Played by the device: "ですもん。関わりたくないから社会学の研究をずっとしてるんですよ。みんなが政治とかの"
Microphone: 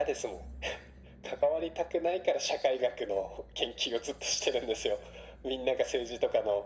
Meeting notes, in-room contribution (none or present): none